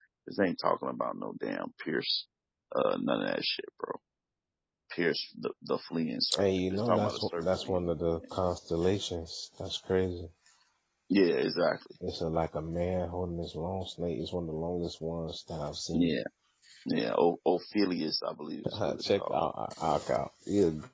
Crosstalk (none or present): present